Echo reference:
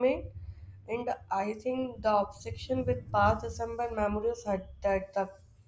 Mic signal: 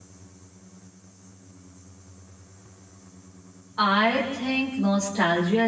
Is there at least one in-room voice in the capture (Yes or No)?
Yes